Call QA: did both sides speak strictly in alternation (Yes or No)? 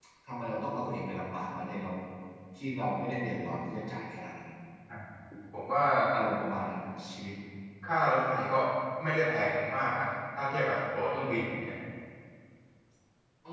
Yes